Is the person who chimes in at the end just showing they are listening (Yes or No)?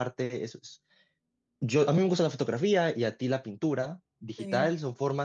Yes